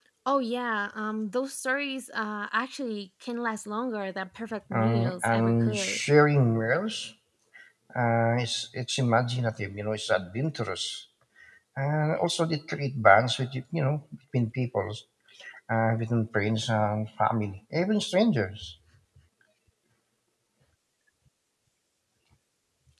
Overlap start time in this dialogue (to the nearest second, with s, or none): 5 s